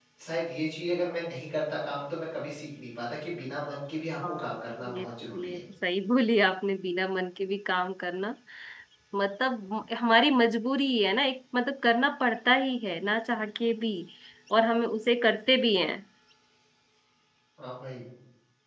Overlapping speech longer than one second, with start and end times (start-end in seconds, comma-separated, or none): 4.3-5.6